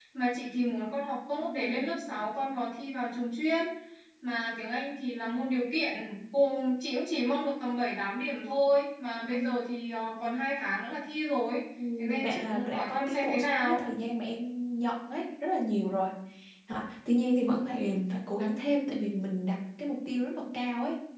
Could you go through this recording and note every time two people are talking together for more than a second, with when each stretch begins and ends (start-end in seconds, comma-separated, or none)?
12.2-13.8